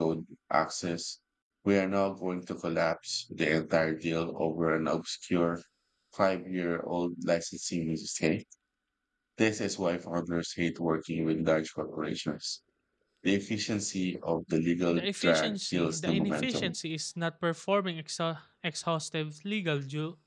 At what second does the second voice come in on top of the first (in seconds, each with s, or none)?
14.9 s